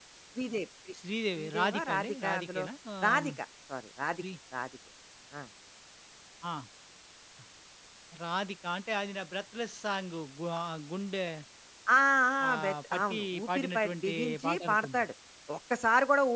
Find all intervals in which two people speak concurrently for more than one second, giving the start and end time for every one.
1.4-2.6, 12.5-15.0

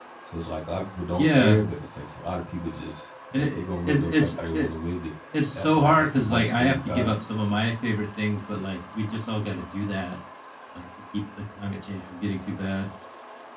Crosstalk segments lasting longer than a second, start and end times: 3.3-4.7, 5.4-7.2

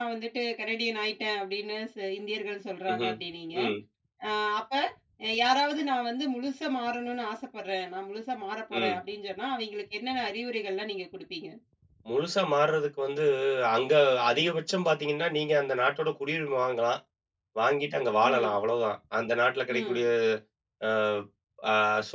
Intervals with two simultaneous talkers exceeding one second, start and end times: none

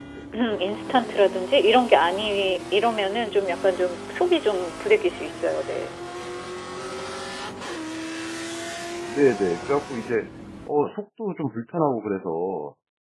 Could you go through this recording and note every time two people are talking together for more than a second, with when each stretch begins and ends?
none

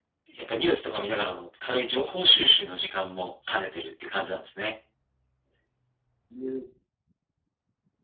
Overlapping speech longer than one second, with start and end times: none

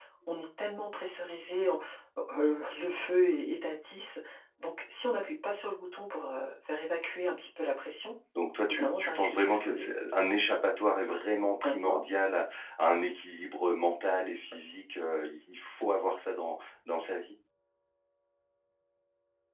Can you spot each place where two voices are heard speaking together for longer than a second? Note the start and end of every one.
8.6-9.9

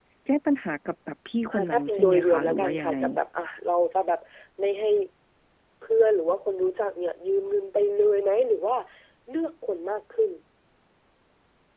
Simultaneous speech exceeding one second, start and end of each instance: 1.5-3.0

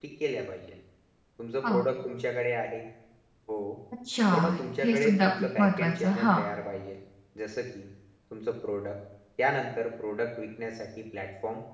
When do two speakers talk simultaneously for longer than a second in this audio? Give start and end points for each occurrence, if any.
4.8-6.4

